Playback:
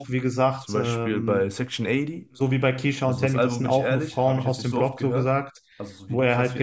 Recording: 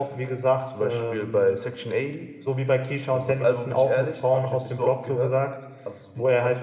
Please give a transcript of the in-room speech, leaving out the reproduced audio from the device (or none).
none